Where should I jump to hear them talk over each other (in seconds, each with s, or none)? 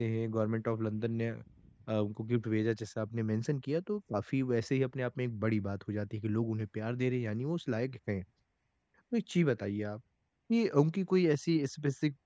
none